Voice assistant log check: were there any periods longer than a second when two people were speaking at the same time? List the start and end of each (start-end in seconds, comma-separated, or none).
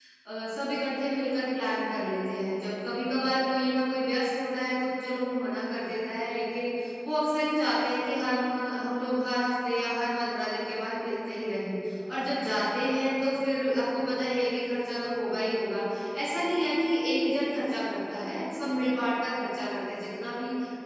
none